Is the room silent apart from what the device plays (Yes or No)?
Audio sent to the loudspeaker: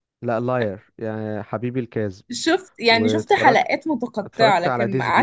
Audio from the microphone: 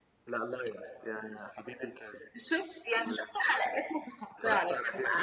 Yes